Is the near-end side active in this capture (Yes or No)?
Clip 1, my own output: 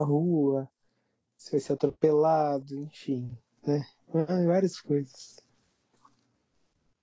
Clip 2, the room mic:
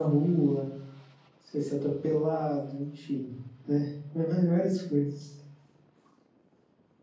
No